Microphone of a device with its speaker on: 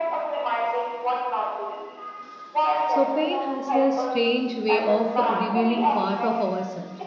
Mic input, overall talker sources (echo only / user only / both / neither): both